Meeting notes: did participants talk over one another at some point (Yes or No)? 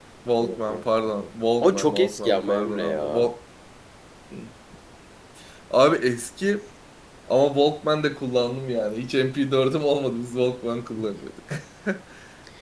Yes